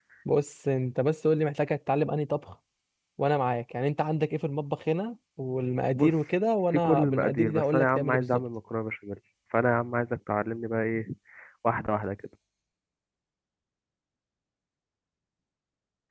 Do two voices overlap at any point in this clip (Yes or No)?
Yes